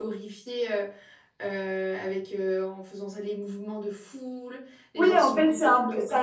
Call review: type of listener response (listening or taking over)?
taking over